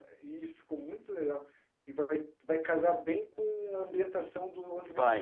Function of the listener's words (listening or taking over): listening